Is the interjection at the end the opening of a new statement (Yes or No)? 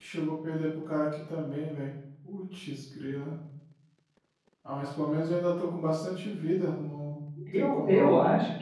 Yes